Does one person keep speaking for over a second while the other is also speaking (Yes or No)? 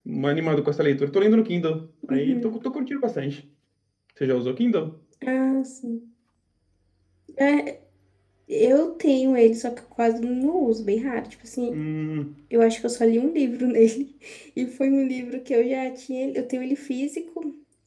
No